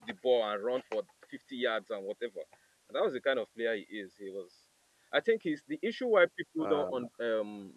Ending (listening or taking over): listening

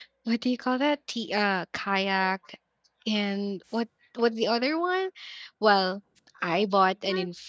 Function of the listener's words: listening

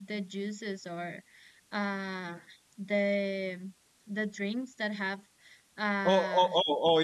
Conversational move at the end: taking over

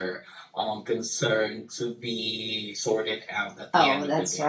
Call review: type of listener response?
taking over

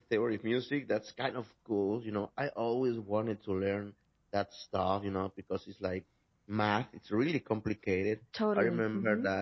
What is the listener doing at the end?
listening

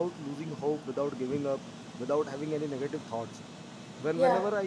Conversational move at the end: listening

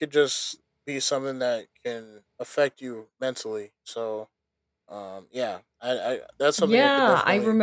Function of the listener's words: taking over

